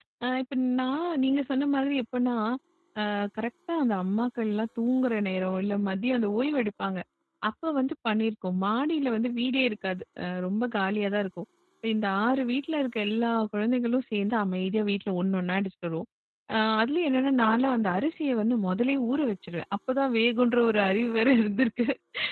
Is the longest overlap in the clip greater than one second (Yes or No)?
No